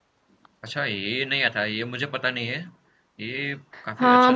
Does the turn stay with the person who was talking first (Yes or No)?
No